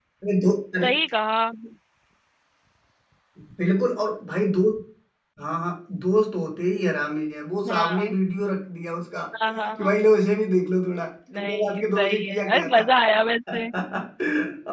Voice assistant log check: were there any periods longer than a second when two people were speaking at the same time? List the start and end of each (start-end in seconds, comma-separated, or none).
11.3-12.8